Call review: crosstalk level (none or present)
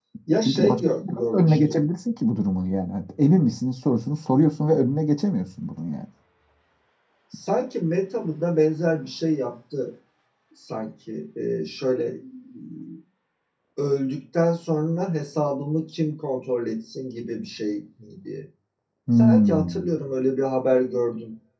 present